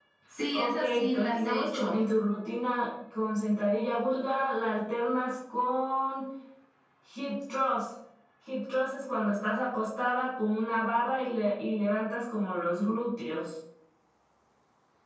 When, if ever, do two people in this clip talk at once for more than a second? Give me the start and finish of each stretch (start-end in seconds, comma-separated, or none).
0.5-2.0